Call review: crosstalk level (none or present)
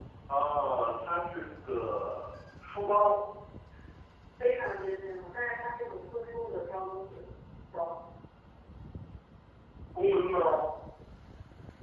none